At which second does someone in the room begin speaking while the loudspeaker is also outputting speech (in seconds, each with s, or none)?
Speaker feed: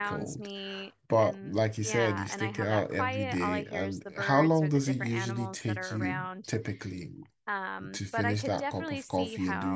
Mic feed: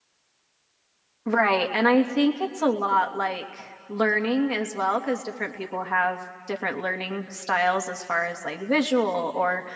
1.2 s